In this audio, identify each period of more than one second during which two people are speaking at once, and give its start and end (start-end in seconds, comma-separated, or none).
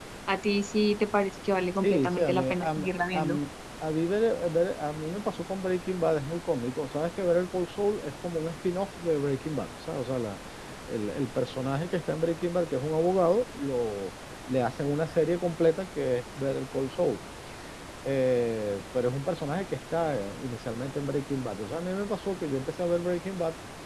1.8-3.4